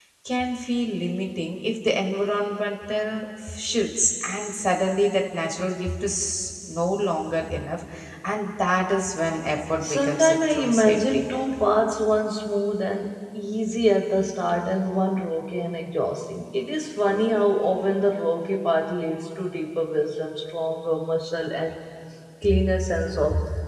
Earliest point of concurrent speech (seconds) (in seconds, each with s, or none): 9.6 s